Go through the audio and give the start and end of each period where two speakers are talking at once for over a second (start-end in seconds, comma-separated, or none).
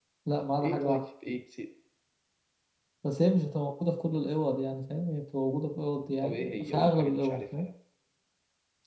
6.2-7.7